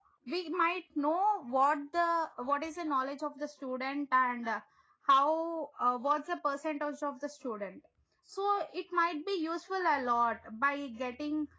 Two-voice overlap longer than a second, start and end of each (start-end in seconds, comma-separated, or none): none